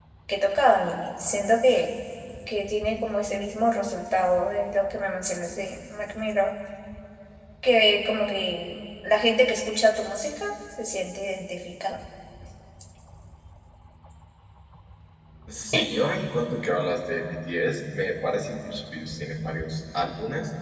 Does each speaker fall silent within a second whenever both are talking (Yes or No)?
Yes